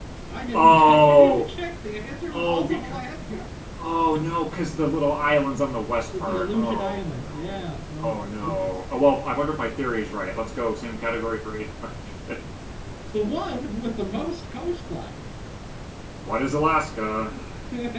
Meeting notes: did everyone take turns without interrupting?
No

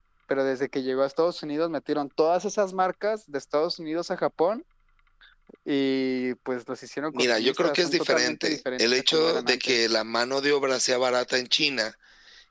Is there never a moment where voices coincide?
No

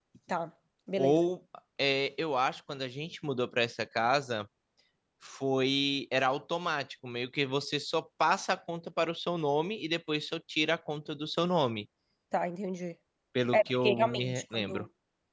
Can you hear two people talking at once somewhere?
Yes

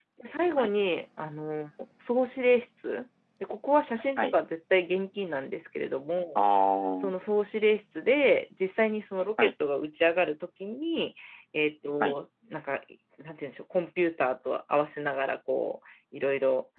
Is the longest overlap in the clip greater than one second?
No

